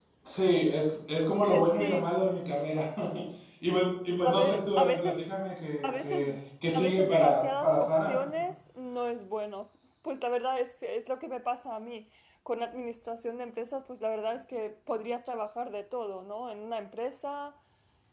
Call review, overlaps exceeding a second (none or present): present